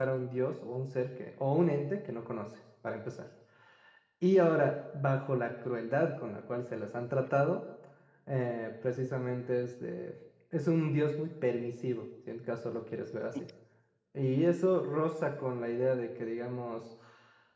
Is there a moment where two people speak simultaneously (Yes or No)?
No